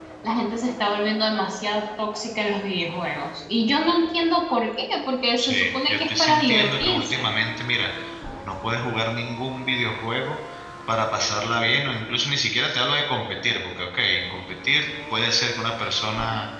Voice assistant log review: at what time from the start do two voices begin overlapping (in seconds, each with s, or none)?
5.4 s